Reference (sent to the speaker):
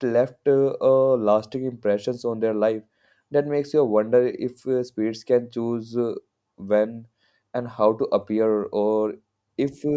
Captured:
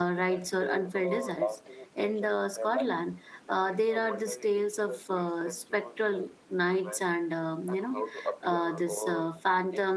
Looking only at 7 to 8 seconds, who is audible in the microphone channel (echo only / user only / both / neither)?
both